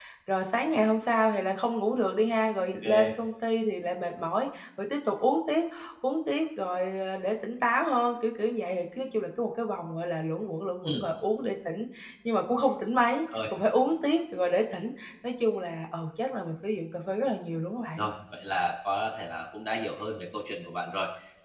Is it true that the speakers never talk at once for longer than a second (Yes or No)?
Yes